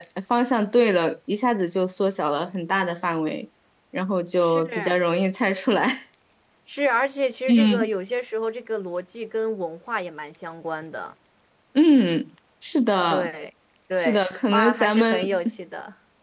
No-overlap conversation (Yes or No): No